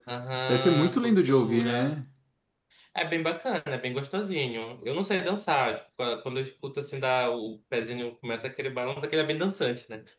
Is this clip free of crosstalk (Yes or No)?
No